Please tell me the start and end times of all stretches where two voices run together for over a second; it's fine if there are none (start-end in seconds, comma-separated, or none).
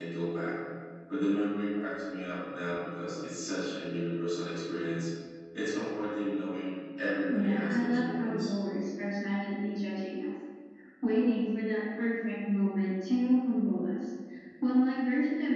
7.3-8.5